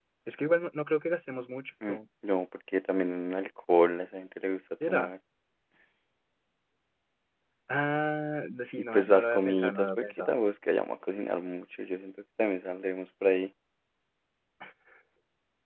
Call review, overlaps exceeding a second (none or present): present